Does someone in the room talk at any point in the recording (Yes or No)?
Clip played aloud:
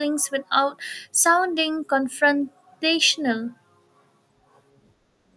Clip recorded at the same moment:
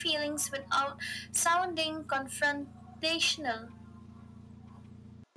No